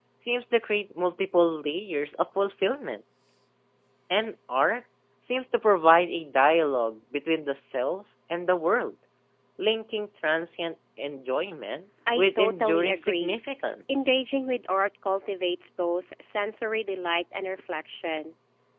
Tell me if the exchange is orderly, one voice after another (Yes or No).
No